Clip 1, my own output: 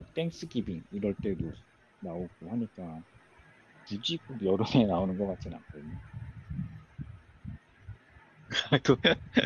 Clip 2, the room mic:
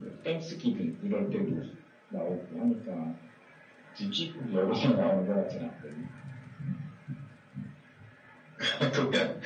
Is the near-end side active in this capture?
No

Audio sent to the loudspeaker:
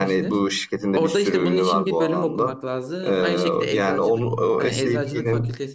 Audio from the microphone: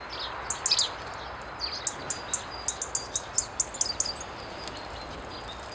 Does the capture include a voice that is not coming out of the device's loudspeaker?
No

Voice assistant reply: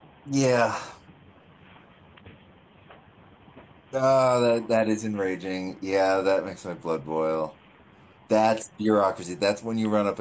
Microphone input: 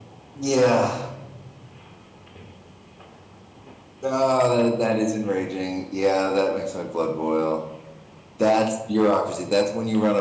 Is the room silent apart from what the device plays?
Yes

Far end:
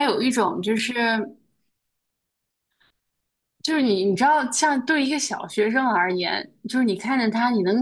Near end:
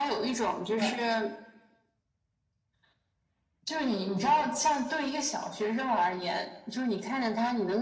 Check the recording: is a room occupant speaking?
Yes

